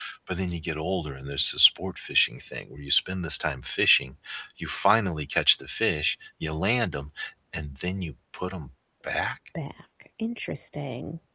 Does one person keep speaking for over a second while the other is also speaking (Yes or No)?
No